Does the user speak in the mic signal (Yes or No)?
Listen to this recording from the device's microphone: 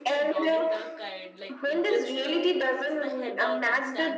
Yes